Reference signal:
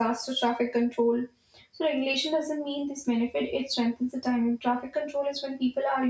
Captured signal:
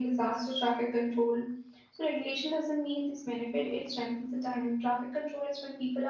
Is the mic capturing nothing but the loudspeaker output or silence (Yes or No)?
Yes